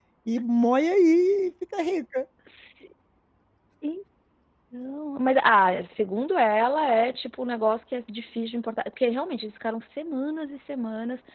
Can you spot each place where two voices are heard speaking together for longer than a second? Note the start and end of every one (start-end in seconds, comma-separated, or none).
none